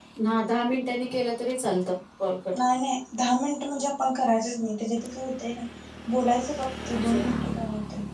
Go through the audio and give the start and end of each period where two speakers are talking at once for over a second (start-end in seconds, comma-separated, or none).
none